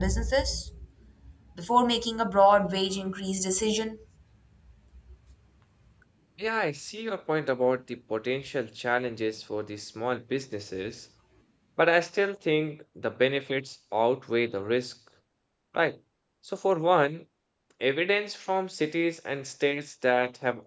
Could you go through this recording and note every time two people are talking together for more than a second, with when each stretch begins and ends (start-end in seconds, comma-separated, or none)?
none